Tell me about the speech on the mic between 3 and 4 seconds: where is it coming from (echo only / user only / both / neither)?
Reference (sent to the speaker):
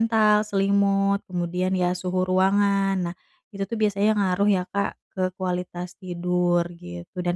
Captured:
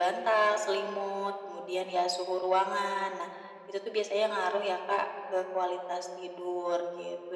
echo only